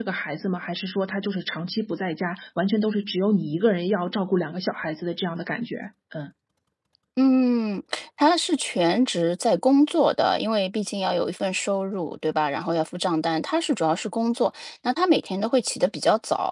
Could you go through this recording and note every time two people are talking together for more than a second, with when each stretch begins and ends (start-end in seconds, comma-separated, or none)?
none